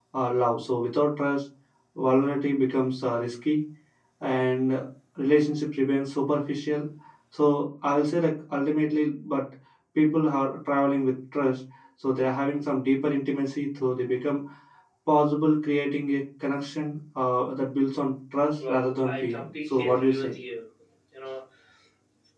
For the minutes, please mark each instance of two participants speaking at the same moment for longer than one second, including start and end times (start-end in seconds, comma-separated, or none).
18.6-20.4